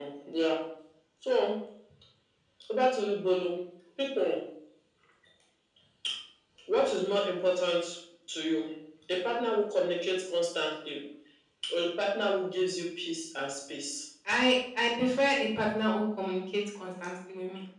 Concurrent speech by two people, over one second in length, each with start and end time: none

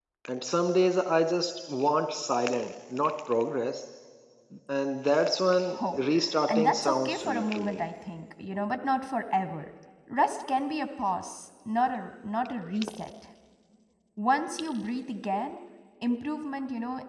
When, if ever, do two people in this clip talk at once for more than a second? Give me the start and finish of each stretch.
6.5-7.8

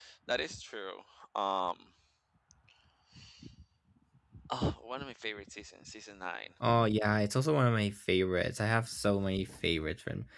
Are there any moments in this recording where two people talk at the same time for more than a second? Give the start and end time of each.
none

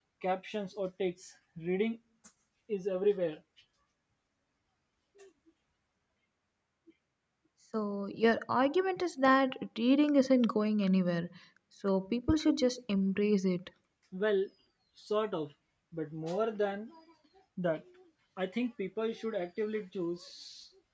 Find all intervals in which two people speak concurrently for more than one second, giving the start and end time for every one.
none

